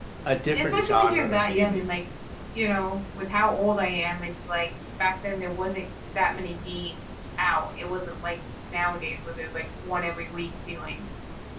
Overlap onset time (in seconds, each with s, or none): 0.5 s